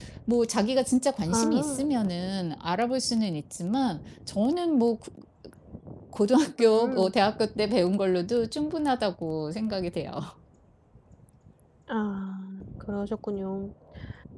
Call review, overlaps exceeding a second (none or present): none